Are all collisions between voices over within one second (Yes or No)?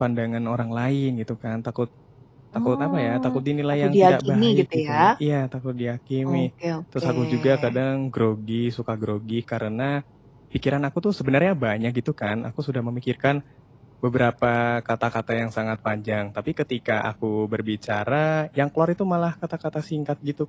No